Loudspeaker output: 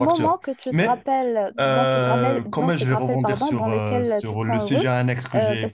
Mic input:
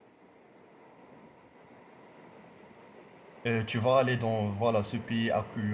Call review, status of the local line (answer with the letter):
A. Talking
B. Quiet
A